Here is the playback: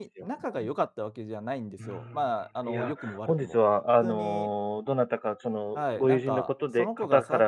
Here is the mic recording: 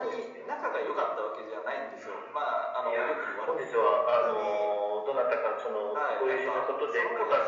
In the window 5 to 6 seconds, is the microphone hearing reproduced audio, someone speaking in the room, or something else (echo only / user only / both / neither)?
echo only